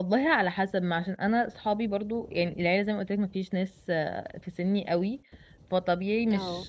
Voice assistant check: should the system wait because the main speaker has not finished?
Yes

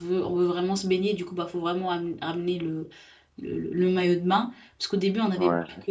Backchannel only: Yes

